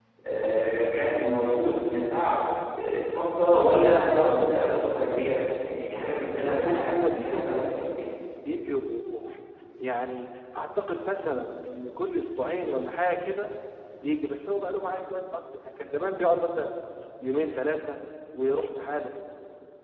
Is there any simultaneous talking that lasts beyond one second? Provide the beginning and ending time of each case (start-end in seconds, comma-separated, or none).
6.4-7.8